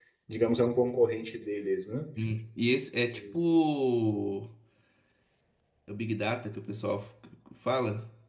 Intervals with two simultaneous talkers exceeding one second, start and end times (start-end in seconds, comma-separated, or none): none